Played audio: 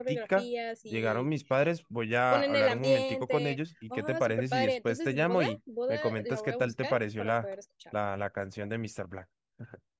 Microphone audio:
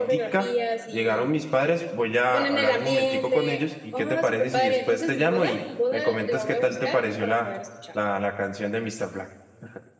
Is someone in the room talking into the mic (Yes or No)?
No